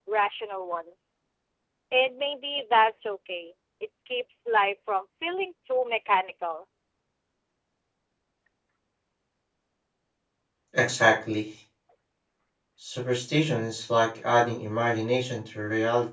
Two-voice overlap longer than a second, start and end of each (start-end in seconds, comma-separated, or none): none